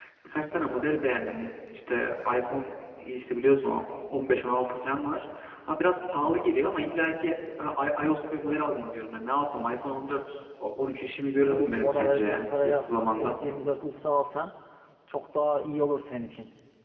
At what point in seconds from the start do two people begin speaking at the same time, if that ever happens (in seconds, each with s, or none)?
11.5 s